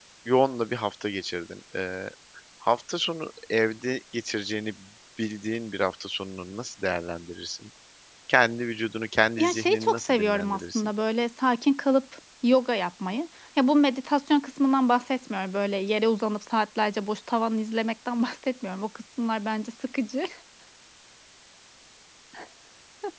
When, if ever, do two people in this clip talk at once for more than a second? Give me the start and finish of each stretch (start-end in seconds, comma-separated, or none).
9.4-10.9